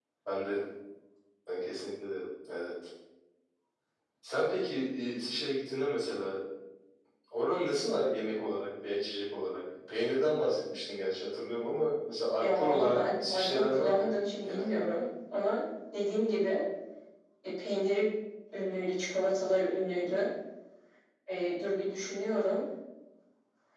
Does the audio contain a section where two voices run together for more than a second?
Yes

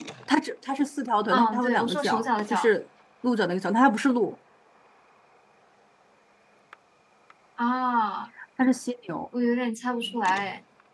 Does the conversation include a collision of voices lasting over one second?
Yes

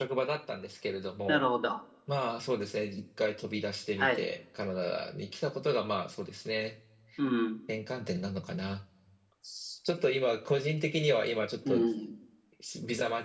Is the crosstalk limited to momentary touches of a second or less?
Yes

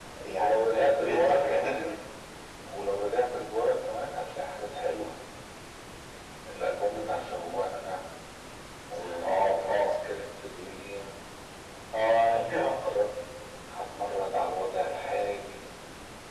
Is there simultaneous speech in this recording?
Yes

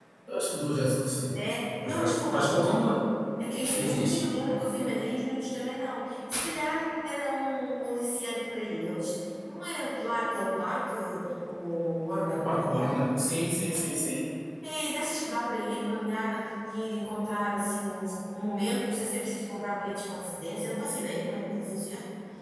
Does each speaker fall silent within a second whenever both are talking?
No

